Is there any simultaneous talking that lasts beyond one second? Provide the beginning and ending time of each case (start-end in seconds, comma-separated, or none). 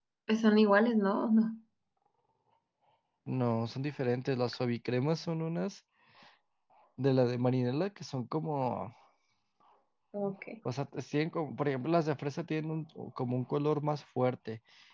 none